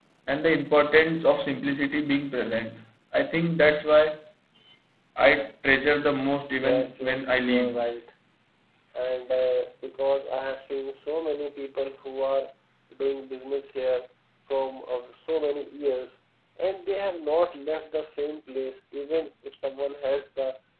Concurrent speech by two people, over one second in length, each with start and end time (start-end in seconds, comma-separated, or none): 6.5-7.7